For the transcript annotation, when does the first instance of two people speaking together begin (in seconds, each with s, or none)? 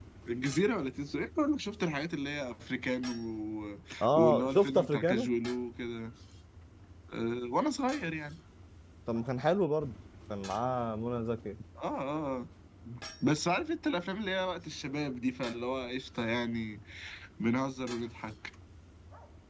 4.0 s